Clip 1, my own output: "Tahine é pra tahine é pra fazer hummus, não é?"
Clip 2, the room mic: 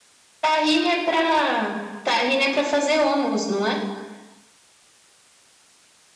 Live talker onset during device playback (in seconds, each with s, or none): none